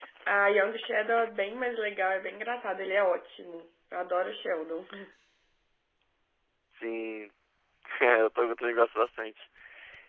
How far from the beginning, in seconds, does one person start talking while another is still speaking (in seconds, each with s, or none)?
none